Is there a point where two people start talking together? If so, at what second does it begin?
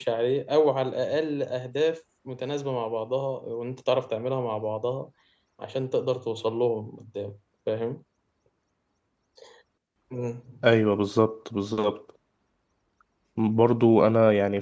none

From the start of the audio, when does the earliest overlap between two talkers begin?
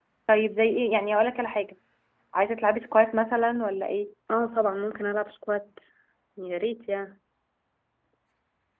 none

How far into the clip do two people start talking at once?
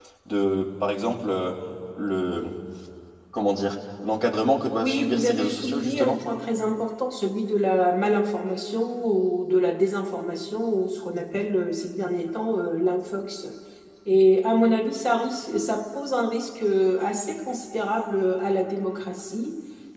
4.8 s

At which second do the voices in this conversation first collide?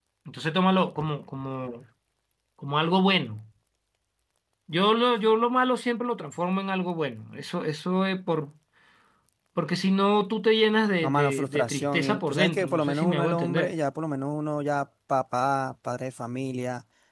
11.0 s

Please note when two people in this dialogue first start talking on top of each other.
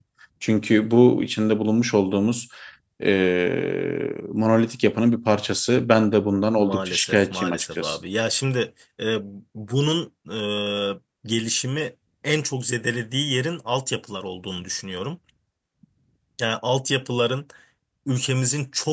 6.6 s

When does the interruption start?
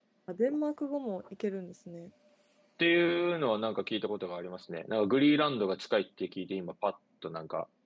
none

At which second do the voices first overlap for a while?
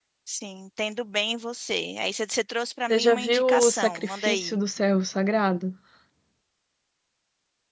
2.9 s

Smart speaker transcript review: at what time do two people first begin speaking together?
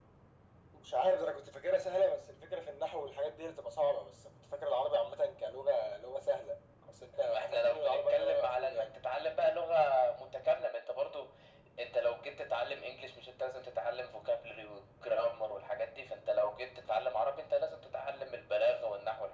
7.2 s

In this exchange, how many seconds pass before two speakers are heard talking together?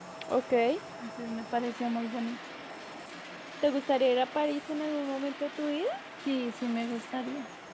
none

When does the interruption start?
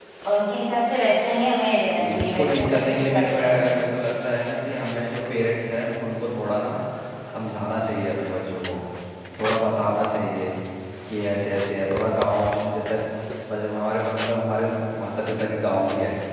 1.9 s

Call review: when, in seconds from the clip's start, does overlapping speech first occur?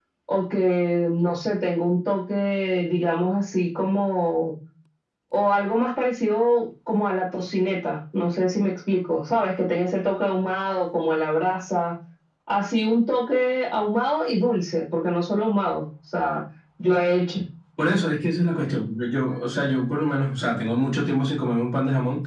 none

